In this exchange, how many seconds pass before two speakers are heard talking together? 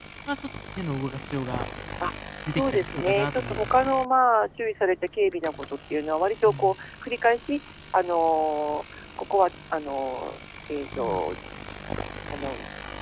2.5 s

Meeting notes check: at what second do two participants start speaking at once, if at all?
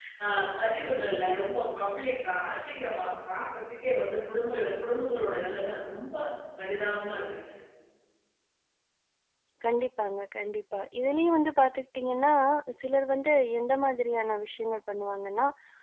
none

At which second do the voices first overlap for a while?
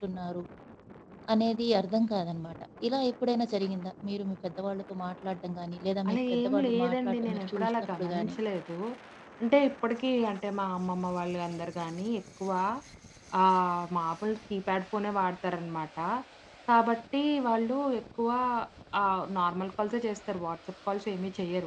6.0 s

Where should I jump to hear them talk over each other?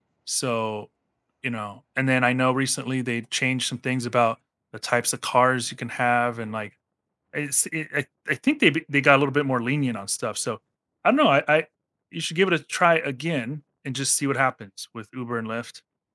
none

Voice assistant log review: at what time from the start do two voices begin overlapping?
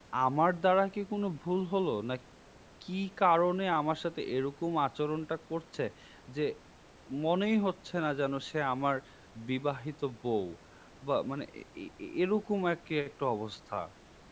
none

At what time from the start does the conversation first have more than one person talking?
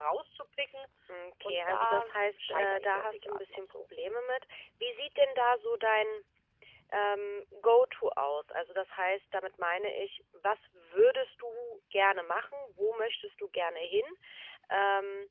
1.4 s

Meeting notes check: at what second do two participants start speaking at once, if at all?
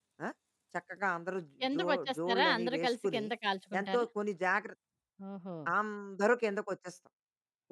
1.7 s

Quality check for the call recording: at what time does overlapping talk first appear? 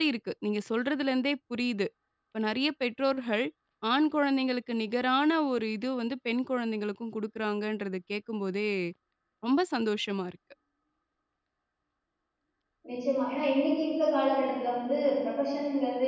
none

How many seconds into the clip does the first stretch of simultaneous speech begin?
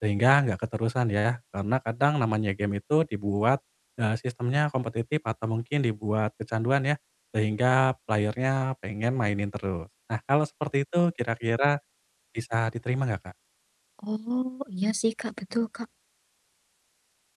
none

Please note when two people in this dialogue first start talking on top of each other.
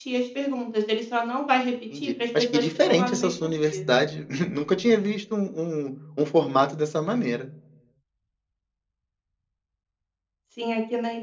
1.9 s

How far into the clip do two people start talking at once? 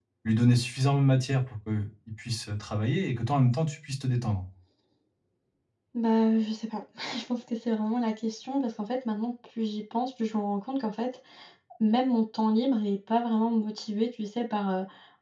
none

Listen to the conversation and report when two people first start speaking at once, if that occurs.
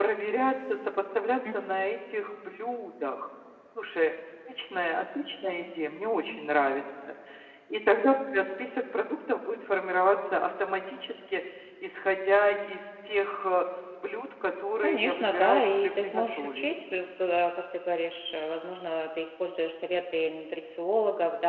14.8 s

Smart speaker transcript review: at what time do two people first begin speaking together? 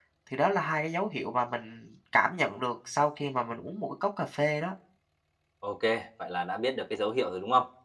none

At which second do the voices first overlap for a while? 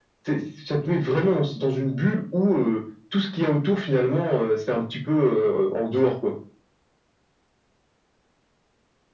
none

